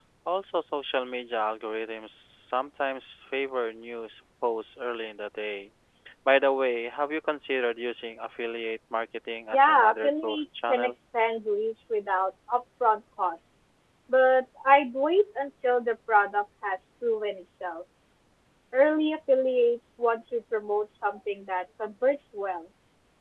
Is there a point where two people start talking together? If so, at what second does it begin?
9.5 s

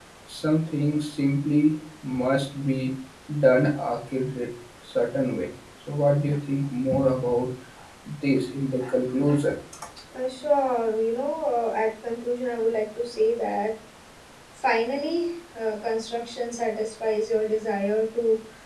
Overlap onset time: none

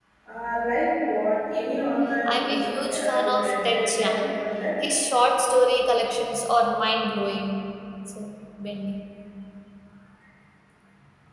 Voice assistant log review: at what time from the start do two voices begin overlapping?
2.3 s

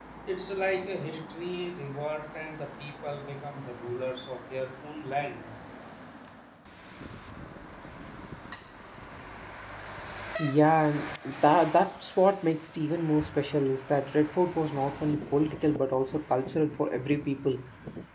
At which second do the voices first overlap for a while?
none

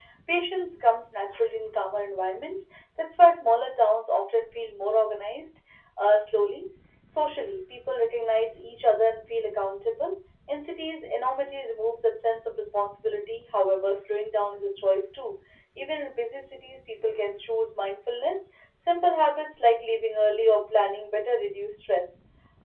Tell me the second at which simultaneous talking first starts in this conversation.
none

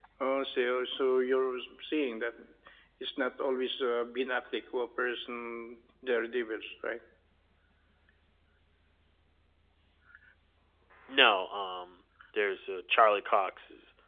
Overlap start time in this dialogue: none

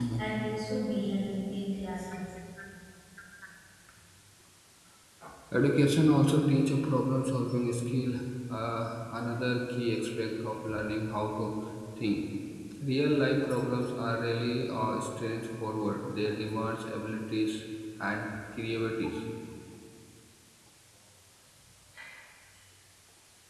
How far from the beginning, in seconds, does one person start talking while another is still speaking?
none

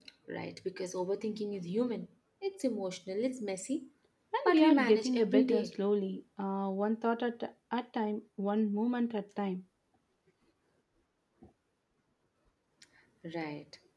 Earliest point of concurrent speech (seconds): 4.5 s

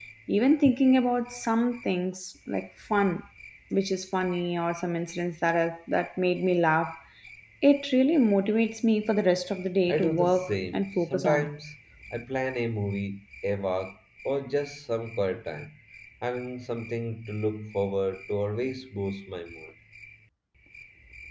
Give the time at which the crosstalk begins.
9.9 s

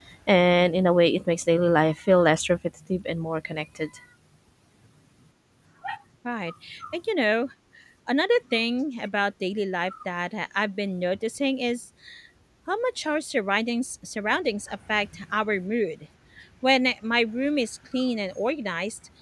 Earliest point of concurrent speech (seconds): none

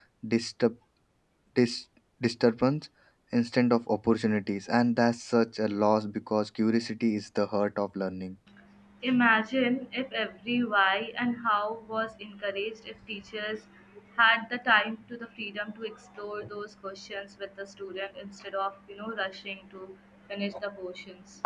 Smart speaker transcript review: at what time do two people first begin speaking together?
none

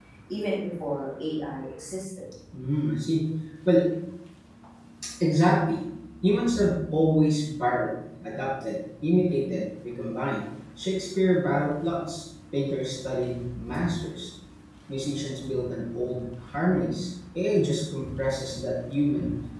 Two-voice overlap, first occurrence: none

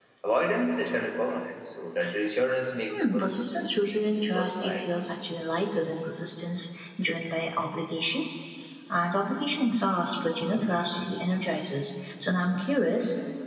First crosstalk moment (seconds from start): 2.9 s

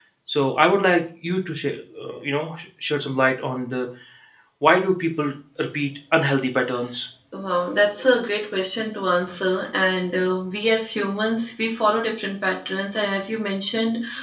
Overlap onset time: none

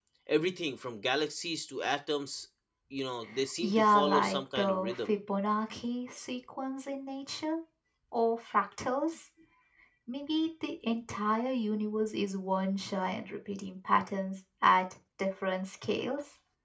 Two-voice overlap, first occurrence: 3.6 s

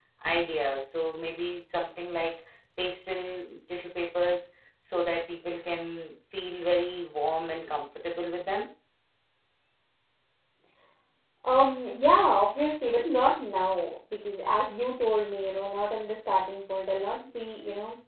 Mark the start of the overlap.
none

